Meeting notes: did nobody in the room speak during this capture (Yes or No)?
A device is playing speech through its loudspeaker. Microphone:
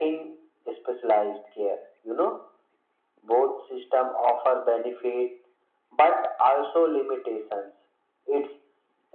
Yes